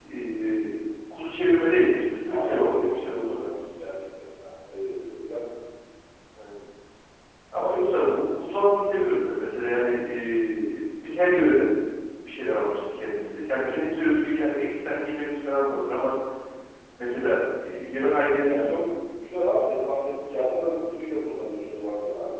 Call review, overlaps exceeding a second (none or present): present